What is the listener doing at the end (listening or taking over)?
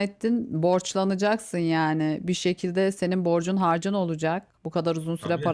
listening